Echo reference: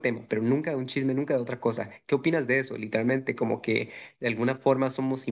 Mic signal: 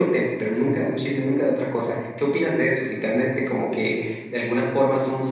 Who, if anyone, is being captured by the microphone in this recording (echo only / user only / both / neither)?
echo only